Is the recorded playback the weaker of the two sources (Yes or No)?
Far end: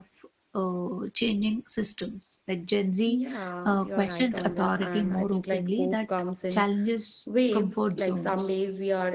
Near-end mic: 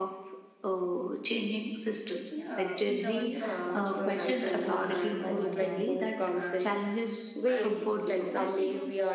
No